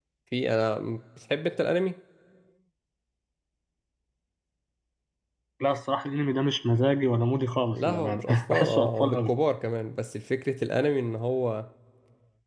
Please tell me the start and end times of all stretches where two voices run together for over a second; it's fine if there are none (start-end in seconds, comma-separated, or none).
7.7-9.3